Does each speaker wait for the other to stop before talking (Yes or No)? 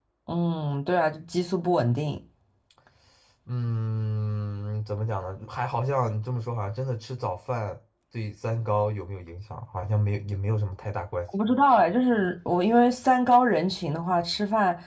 Yes